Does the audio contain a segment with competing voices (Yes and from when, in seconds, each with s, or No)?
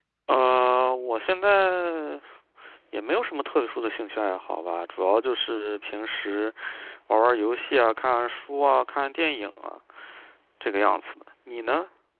No